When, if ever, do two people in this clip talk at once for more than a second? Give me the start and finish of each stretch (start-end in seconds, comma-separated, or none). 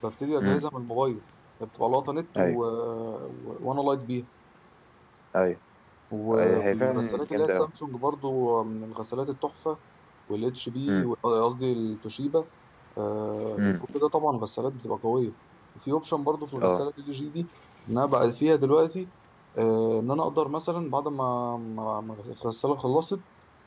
6.3-7.7